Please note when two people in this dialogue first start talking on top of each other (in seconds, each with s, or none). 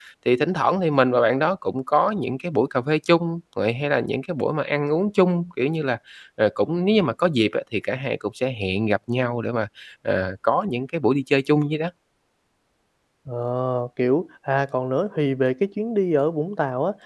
none